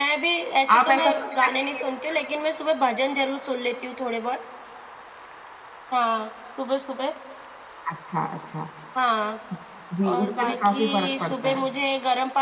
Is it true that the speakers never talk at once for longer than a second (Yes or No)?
No